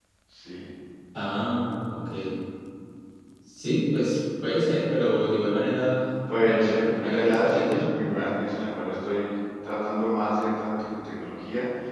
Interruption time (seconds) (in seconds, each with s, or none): 6.3 s